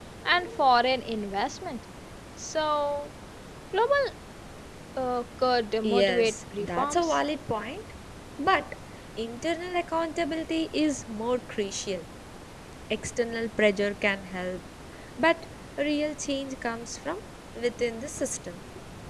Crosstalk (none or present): present